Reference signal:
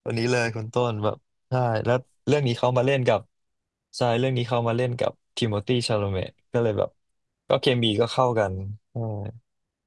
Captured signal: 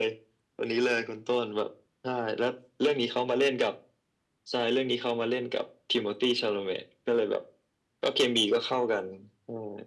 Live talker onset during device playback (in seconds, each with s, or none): none